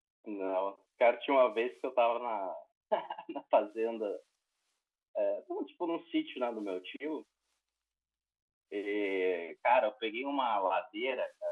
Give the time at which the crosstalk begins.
none

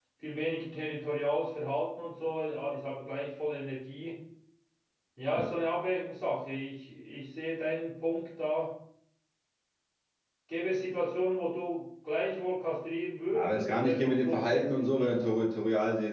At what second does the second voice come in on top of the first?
13.3 s

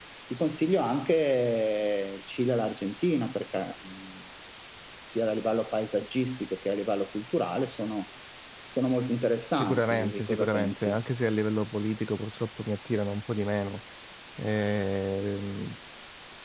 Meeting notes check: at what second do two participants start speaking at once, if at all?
9.6 s

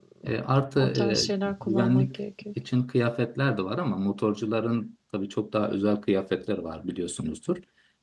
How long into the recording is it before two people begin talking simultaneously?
0.8 s

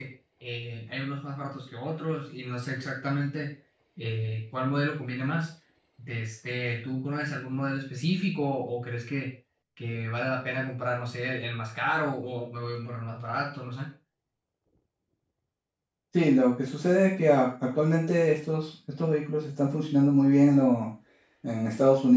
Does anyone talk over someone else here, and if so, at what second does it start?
none

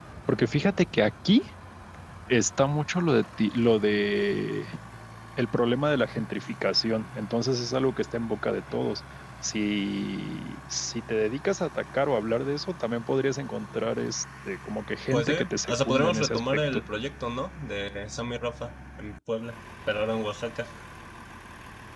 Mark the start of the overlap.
15.1 s

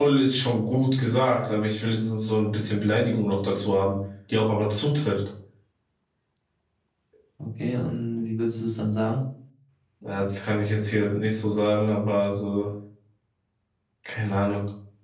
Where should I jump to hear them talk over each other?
none

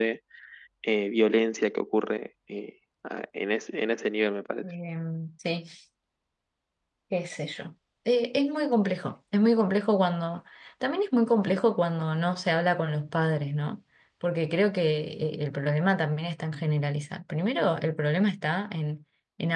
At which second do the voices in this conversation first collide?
none

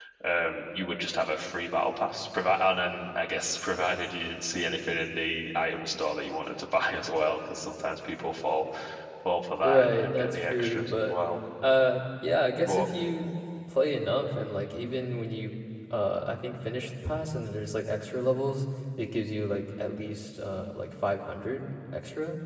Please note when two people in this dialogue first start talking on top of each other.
9.6 s

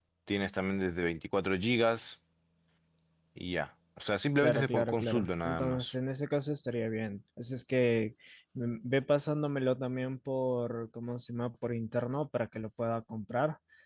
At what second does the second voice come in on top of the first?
4.4 s

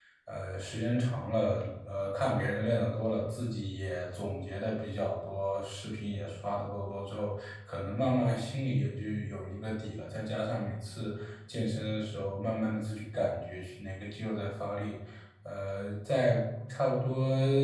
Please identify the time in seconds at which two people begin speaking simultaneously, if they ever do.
none

